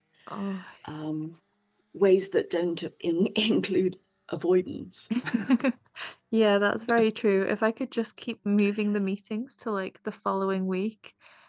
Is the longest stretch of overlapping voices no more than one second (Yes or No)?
Yes